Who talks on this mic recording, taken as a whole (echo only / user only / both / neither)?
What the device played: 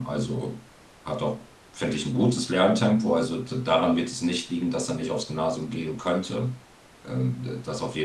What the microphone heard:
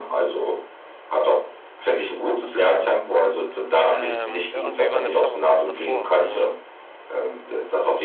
both